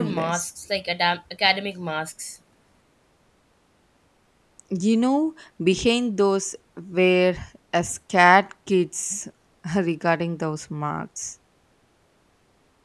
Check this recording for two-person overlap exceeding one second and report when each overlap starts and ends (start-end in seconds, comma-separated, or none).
none